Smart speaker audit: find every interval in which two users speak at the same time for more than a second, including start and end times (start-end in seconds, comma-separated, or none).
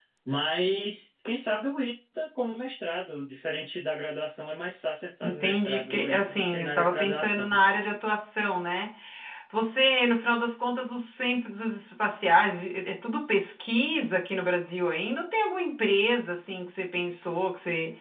5.2-7.6